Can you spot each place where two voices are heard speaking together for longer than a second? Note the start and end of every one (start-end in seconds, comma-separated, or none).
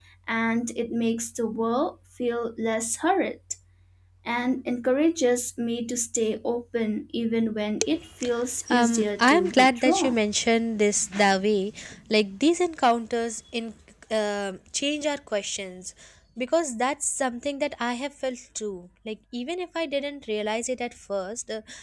8.7-10.2